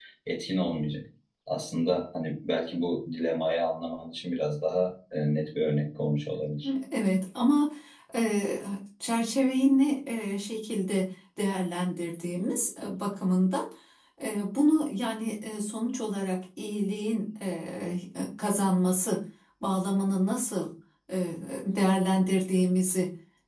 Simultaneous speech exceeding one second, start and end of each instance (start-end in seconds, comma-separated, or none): none